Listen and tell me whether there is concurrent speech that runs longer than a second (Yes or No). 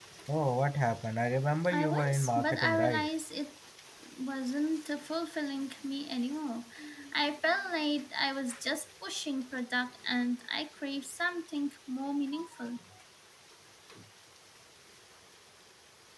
Yes